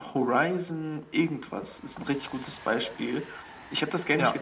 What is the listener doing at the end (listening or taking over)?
listening